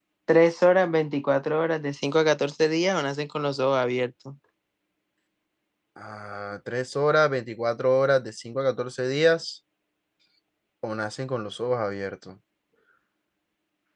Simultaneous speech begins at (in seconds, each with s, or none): none